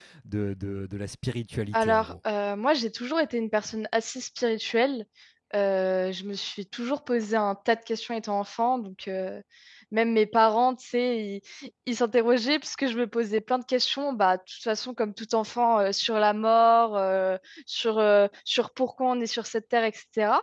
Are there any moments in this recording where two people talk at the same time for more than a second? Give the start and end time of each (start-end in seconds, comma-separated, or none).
none